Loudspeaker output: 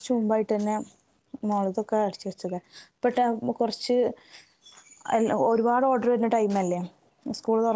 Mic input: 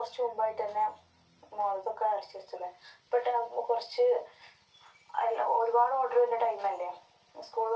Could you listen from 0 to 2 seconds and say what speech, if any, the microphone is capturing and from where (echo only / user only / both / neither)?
echo only